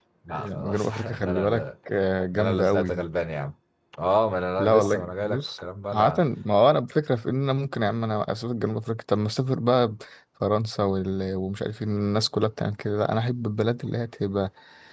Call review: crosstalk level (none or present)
present